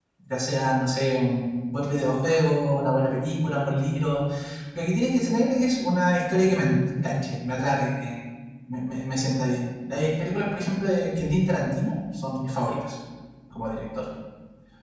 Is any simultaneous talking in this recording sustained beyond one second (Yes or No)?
No